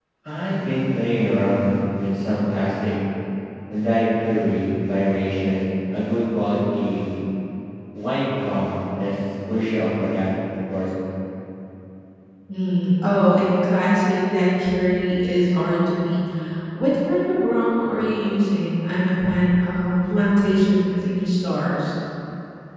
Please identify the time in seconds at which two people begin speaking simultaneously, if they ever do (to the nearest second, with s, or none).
none